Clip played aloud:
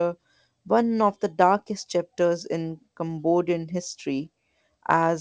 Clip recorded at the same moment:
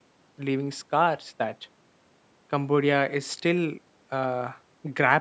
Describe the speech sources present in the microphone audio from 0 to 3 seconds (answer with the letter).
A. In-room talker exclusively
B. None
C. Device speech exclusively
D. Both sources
A